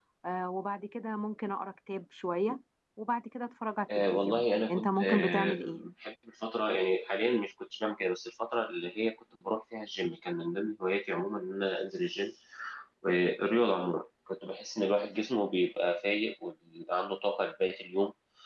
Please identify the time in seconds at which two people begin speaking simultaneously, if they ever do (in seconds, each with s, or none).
3.9 s